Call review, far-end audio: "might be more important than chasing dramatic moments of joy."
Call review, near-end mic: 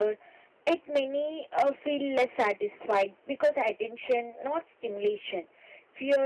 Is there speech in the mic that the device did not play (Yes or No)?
Yes